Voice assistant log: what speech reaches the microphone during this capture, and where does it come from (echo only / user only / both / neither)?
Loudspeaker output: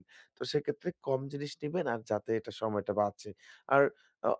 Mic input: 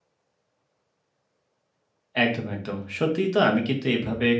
user only